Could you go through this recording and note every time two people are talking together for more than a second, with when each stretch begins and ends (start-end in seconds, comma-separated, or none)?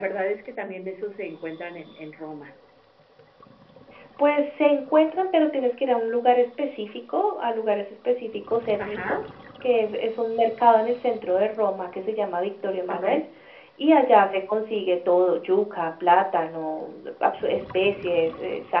none